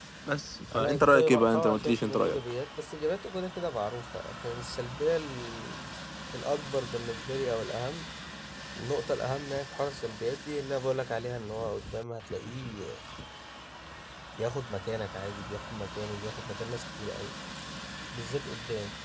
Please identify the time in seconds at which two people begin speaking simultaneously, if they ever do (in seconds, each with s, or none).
0.7 s